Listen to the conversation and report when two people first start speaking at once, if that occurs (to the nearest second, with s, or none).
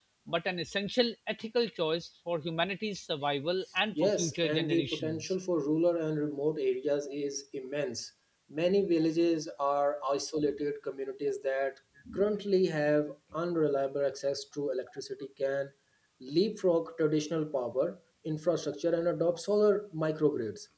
4 s